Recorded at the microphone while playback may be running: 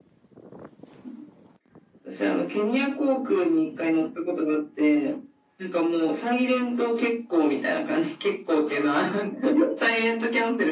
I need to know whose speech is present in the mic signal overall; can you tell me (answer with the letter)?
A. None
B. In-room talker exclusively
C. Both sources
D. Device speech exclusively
D